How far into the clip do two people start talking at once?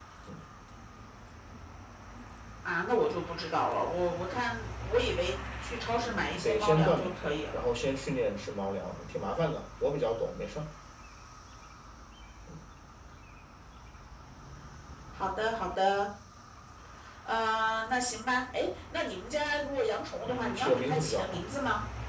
5.9 s

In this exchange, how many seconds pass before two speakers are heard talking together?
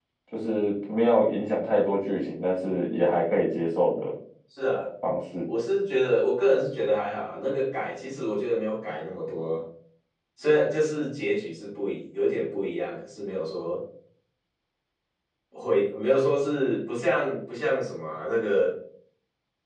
none

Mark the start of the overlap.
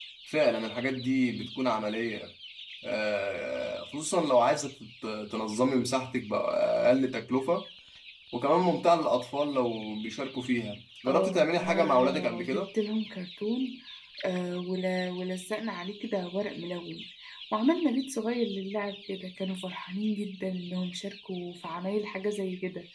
11.1 s

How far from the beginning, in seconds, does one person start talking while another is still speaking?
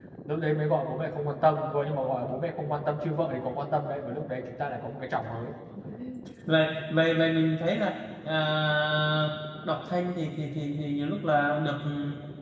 none

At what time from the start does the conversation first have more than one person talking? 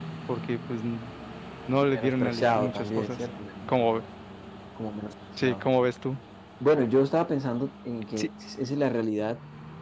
1.9 s

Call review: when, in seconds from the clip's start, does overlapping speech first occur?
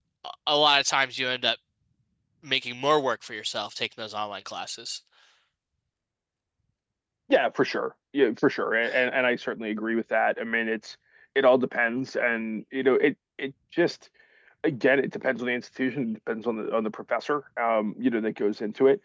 none

